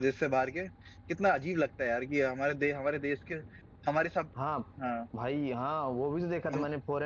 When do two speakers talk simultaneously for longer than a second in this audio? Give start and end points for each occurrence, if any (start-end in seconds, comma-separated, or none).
none